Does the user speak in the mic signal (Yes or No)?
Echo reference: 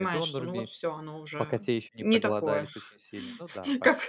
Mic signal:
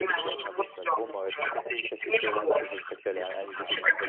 Yes